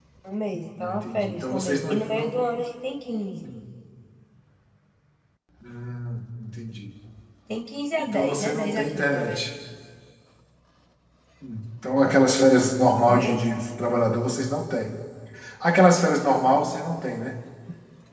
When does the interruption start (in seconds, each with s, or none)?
0.8 s